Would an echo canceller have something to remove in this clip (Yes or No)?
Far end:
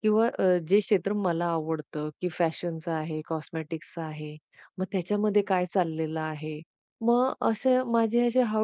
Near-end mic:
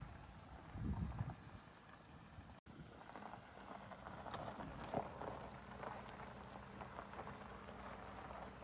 No